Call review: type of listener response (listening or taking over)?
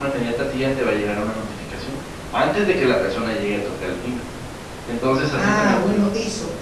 taking over